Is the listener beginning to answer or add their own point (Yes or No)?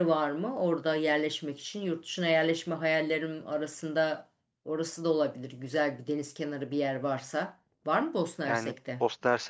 Yes